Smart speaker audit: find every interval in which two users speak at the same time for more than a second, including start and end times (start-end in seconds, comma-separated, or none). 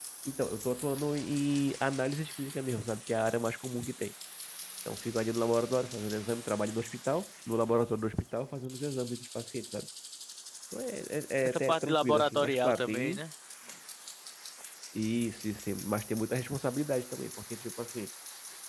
11.4-13.2